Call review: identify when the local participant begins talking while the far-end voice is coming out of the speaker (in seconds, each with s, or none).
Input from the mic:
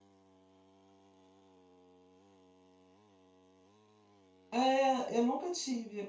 4.5 s